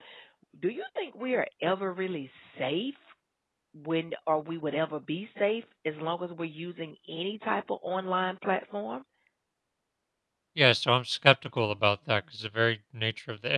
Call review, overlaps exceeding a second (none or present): none